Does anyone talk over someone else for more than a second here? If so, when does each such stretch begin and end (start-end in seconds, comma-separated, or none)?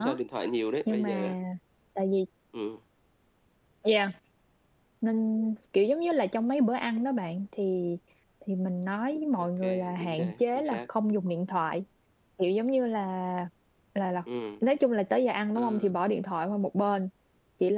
9.4-10.8